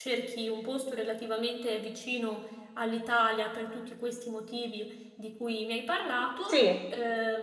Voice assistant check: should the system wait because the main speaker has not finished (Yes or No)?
Yes